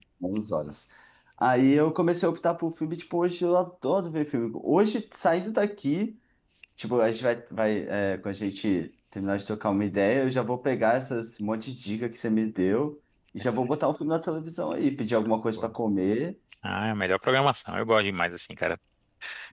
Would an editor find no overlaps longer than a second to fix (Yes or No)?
Yes